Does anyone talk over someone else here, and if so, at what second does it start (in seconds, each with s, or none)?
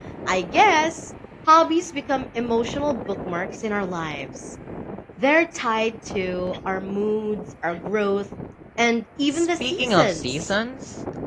9.3 s